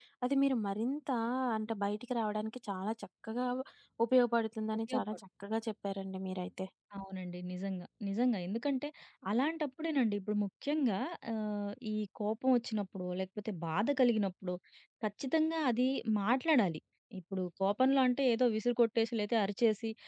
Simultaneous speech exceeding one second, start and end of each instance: none

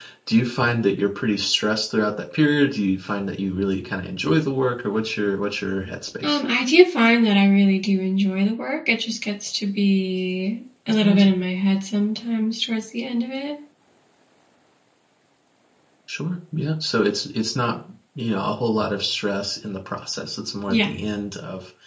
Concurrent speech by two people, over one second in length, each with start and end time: none

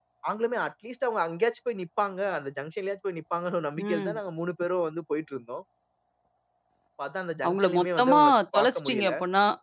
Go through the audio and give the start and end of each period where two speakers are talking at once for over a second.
7.4-9.1

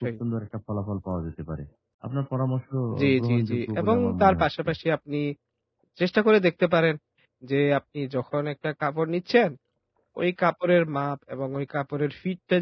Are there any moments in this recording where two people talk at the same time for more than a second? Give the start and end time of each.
3.0-4.7

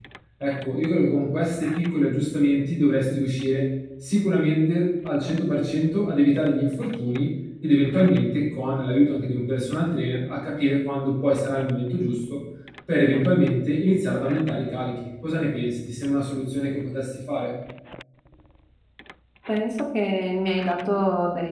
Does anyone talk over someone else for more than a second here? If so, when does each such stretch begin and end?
none

